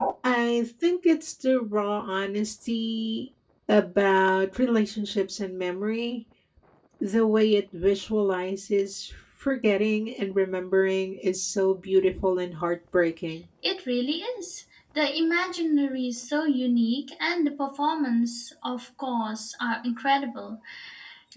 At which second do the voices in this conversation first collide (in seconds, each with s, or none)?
none